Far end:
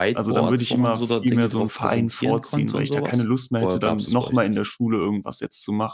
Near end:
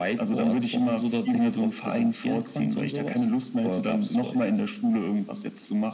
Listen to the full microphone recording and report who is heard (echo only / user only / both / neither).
echo only